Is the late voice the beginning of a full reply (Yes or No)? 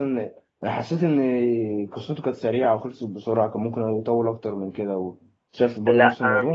Yes